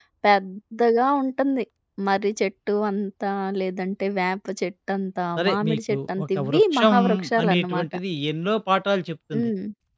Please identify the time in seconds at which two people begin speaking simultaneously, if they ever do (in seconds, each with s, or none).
5.4 s